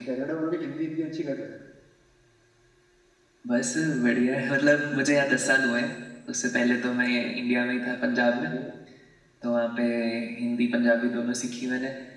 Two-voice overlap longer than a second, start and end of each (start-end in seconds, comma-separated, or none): none